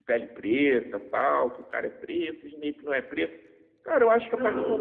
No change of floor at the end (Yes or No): Yes